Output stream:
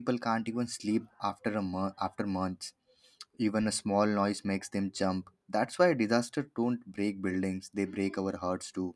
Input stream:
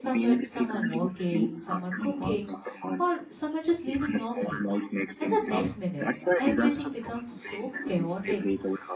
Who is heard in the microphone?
both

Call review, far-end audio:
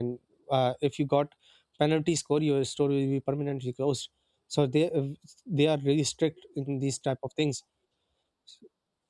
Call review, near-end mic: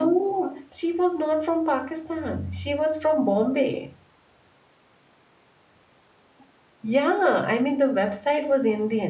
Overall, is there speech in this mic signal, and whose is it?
user only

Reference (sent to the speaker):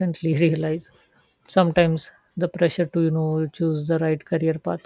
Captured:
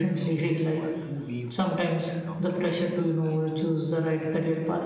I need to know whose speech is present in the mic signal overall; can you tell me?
both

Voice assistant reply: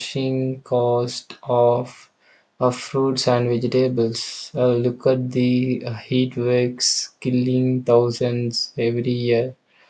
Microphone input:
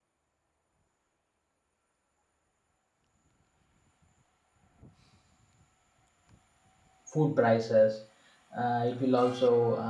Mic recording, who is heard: user only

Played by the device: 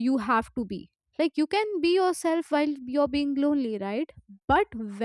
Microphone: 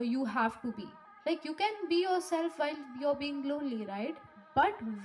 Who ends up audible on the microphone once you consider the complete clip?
echo only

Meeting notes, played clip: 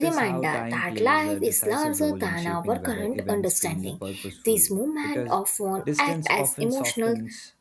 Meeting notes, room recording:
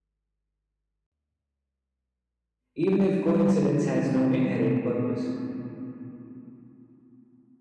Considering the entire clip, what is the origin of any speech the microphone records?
user only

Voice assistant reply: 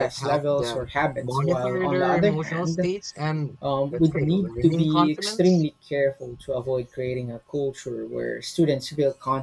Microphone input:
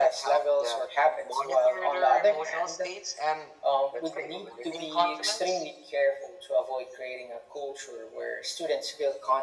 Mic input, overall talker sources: echo only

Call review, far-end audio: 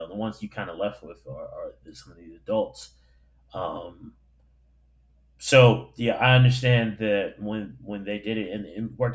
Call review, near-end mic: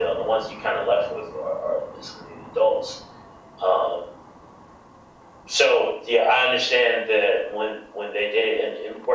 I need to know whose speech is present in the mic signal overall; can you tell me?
echo only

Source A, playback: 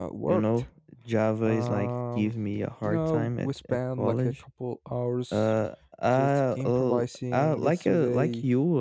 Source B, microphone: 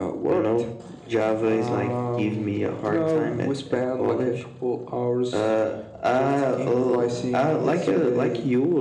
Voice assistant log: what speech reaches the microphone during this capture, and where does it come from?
echo only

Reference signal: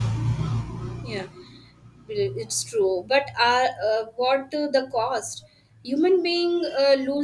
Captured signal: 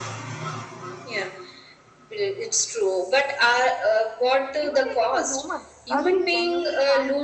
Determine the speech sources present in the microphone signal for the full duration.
both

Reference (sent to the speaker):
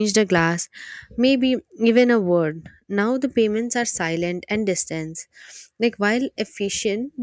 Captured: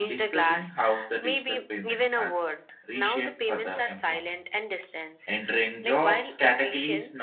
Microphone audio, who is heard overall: both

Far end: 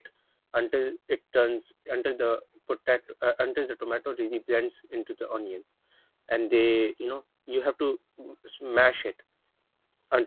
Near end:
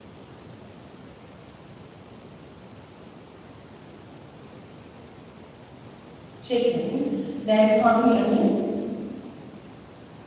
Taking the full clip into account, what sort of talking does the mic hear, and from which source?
user only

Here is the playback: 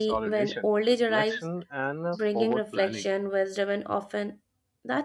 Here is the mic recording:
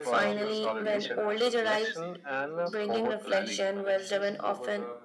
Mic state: both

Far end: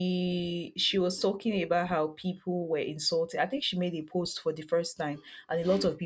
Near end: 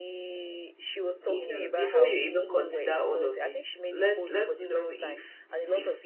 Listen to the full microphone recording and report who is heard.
both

